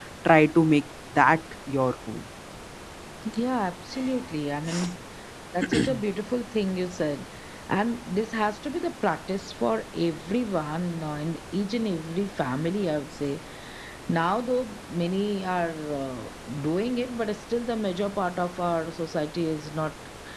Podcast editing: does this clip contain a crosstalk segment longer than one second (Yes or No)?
No